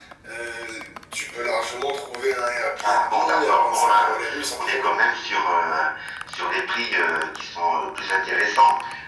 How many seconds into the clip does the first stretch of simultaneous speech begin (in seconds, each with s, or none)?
2.8 s